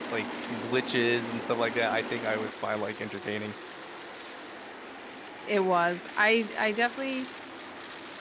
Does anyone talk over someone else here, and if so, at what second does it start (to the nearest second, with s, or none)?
none